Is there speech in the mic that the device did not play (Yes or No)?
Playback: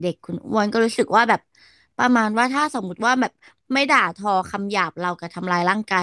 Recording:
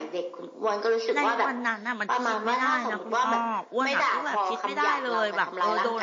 Yes